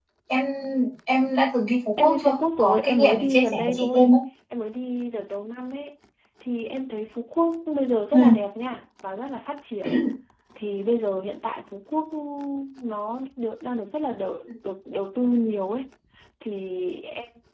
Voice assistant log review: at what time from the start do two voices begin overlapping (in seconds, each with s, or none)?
2.0 s